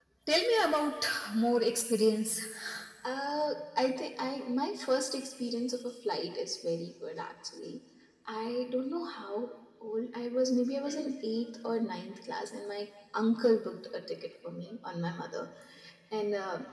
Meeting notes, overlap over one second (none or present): none